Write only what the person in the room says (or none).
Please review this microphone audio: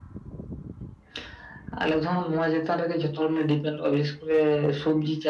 none